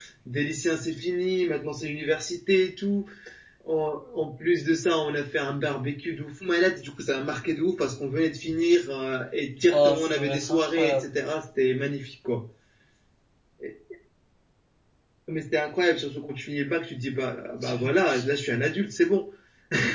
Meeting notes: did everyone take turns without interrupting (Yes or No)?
No